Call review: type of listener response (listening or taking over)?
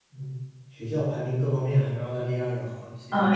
taking over